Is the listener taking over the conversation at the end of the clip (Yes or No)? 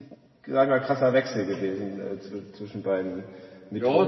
Yes